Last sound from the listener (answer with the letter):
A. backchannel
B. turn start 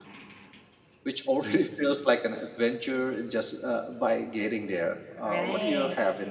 B